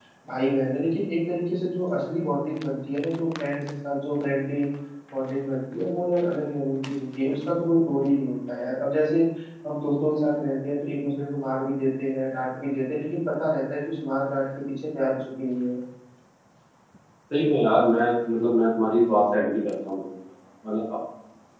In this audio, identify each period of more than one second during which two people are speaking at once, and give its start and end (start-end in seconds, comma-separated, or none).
none